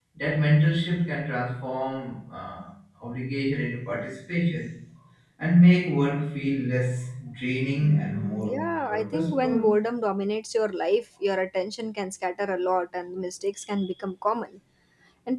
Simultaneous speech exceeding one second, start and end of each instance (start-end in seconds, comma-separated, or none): 7.8-9.8